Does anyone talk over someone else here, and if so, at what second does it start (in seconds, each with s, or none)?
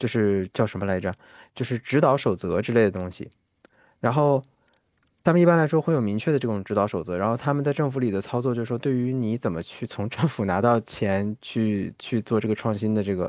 none